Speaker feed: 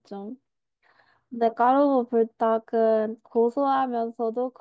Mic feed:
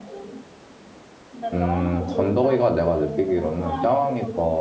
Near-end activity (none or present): present